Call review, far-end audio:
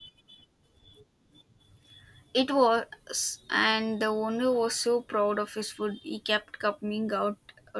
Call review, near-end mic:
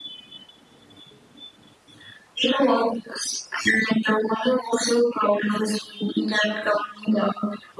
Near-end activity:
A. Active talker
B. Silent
B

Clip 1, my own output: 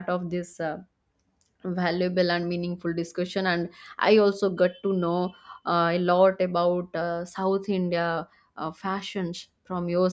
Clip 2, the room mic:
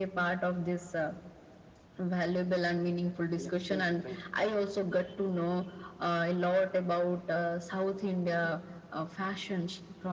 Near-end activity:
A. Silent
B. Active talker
B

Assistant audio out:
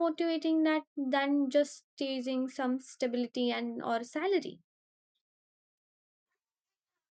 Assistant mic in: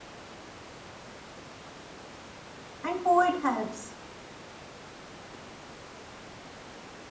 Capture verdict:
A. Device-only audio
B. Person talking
B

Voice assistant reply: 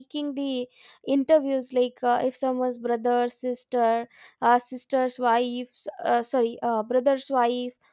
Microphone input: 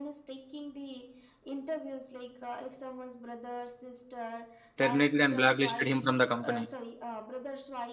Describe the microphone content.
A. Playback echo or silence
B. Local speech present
B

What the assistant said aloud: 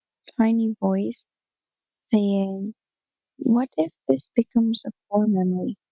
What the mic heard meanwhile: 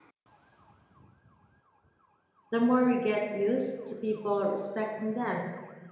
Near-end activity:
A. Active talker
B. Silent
A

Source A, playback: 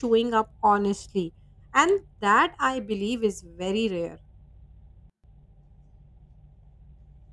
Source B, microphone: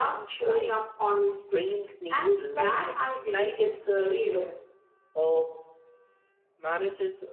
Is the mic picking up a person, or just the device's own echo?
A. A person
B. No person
A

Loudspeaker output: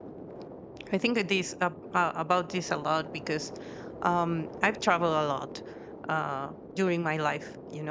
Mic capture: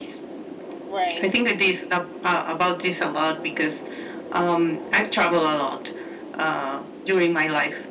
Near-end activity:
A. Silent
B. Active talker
B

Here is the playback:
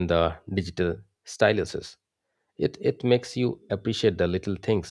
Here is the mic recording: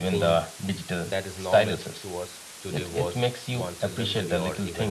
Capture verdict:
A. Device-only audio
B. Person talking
B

